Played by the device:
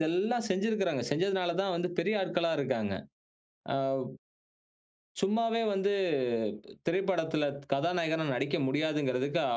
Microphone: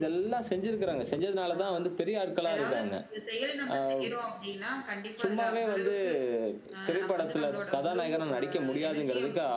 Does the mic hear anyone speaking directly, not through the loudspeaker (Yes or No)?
Yes